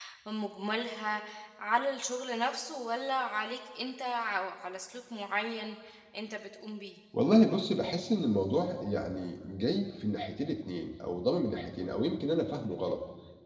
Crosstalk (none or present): none